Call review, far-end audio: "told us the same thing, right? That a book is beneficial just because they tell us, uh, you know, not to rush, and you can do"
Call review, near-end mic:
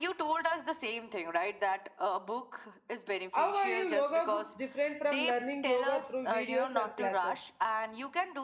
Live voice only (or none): How are you yoga books different from learning yoga through videos or classes?